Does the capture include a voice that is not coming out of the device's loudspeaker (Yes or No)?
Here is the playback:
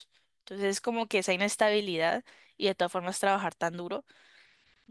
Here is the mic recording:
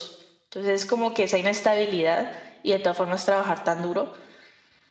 No